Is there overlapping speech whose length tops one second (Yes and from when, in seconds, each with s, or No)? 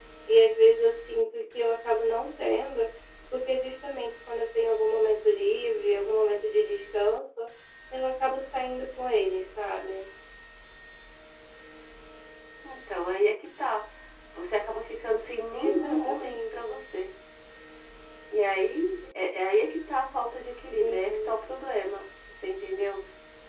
Yes, from 15.6 s